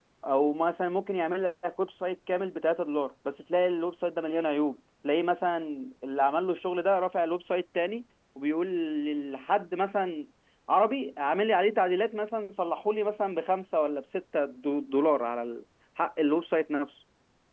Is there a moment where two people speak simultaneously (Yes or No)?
No